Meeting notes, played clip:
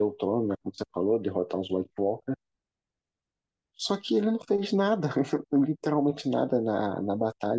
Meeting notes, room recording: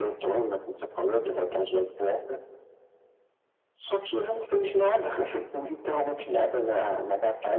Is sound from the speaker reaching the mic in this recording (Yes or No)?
Yes